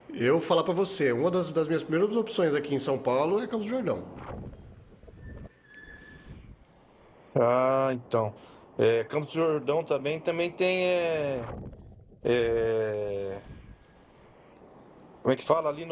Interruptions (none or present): none